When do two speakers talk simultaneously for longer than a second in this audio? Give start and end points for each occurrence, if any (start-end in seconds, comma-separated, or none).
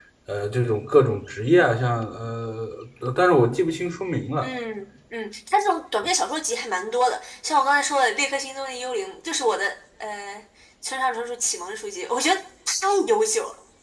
none